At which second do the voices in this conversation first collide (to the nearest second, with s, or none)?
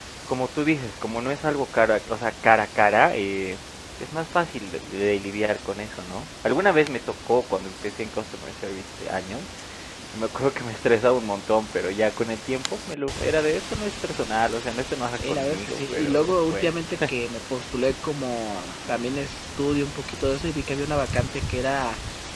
15 s